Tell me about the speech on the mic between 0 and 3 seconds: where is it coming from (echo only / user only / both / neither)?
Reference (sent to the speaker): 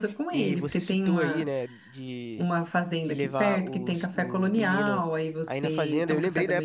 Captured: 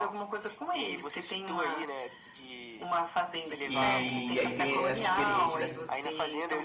echo only